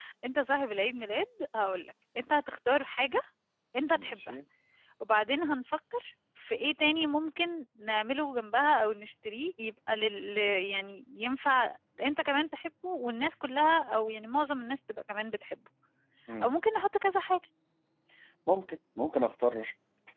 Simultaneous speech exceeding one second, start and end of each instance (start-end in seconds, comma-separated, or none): none